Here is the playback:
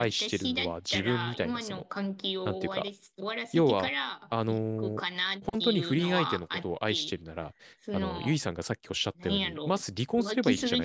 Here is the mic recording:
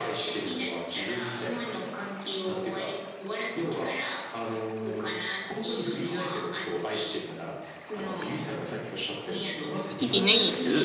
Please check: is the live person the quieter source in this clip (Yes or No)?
No